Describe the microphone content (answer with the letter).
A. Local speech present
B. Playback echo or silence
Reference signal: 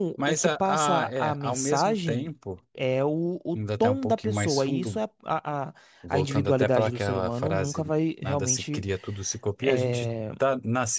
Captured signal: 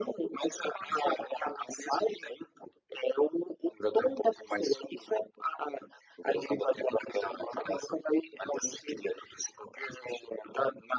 B